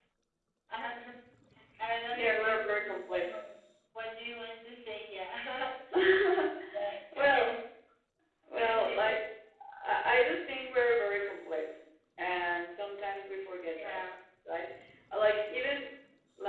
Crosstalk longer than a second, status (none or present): present